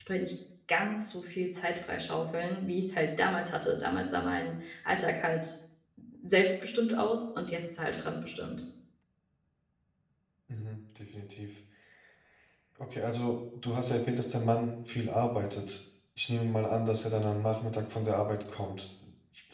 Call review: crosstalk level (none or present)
none